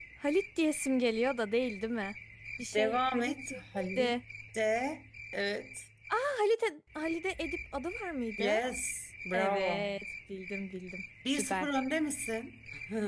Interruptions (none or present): present